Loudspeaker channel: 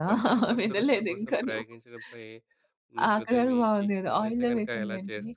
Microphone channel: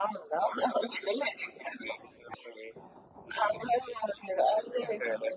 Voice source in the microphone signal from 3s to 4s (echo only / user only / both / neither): echo only